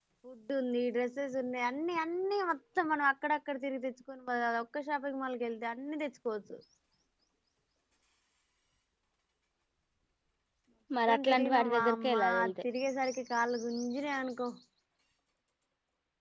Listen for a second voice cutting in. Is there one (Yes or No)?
Yes